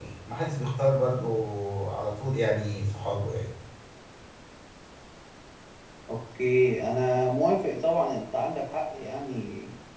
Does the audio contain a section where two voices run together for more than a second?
No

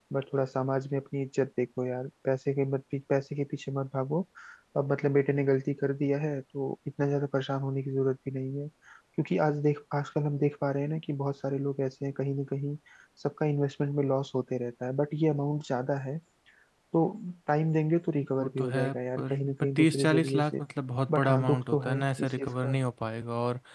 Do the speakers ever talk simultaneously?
Yes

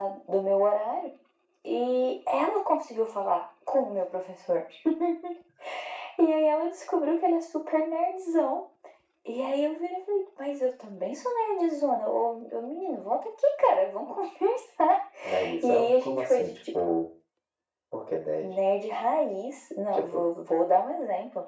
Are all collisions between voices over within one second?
No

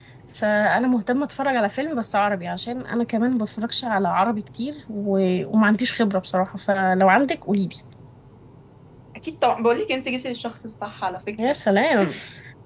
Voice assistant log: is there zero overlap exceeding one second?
Yes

